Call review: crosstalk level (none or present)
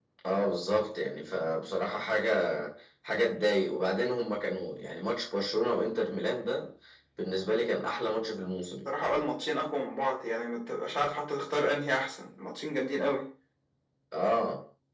none